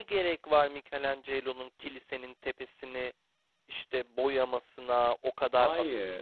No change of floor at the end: Yes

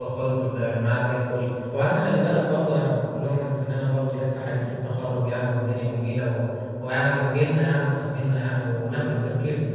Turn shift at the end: No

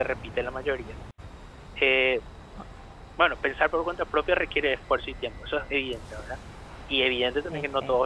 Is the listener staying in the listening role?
Yes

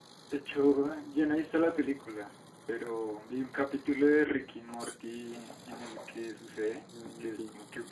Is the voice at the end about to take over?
No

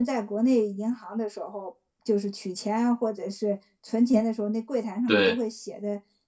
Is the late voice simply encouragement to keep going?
Yes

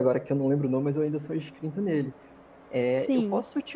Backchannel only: Yes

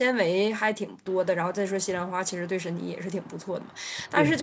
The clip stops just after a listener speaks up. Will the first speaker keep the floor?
Yes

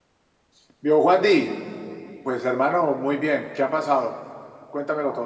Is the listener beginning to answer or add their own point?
Yes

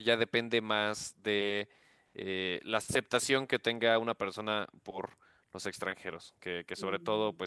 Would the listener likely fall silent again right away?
Yes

